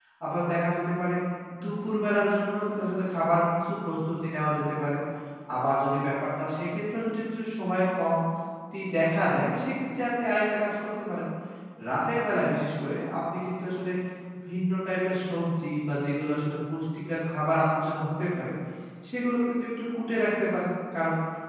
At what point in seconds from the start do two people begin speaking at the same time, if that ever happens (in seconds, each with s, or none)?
none